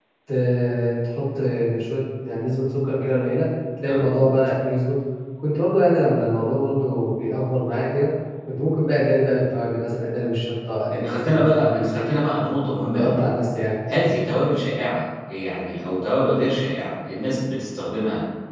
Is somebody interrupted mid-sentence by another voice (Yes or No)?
Yes